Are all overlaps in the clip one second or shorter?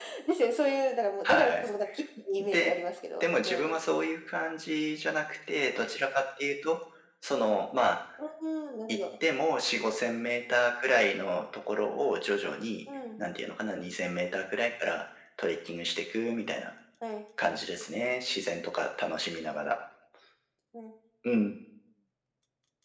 Yes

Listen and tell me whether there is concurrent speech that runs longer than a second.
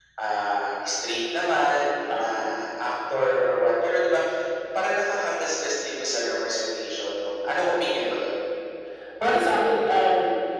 No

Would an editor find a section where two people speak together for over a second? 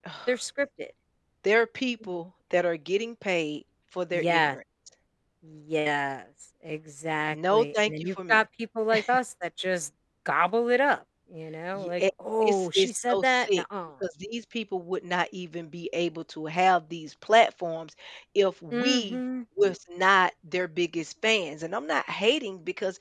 Yes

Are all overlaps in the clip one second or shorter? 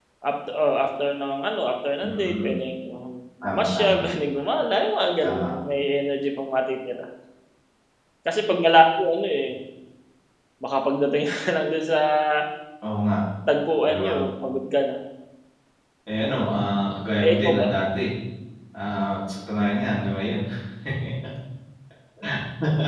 Yes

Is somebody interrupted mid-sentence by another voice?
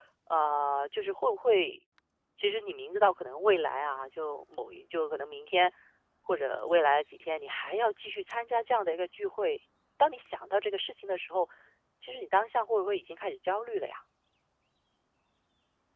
No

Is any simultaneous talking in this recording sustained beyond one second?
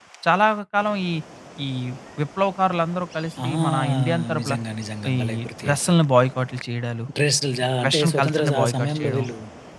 Yes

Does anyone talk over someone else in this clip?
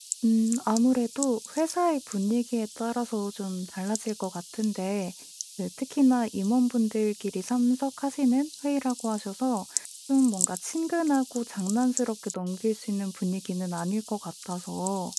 No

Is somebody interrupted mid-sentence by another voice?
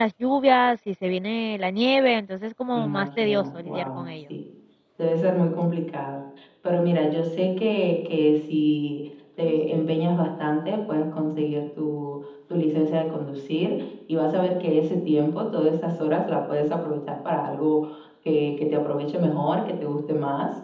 Yes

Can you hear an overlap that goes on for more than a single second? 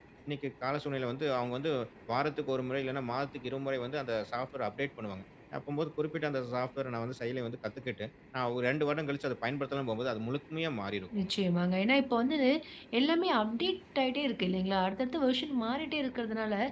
No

